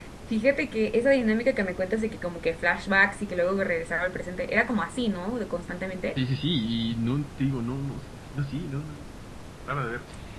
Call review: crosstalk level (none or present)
none